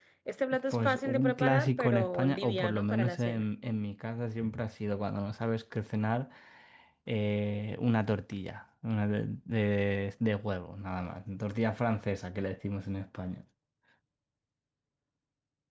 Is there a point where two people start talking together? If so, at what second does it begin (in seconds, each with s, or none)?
0.7 s